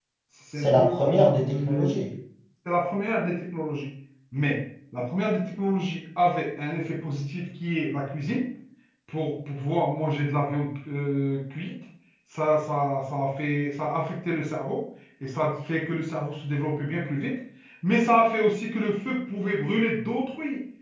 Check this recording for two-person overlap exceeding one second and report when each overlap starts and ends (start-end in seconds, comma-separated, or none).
0.6-1.9